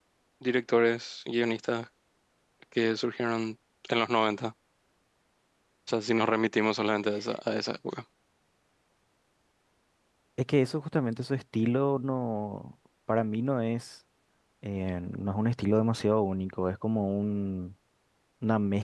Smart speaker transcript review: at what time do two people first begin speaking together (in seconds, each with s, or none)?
none